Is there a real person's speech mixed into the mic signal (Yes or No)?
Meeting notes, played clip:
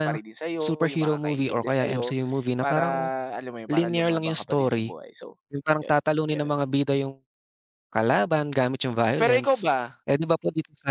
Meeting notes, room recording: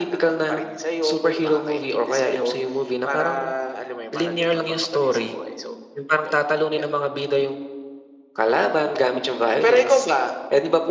No